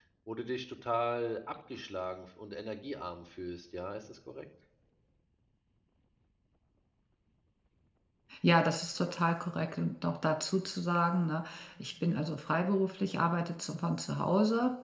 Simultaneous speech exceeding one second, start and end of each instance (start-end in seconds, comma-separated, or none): none